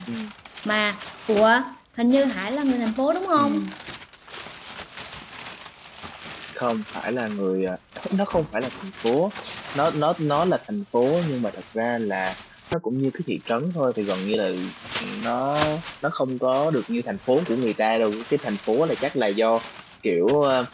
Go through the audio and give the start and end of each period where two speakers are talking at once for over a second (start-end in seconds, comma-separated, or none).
none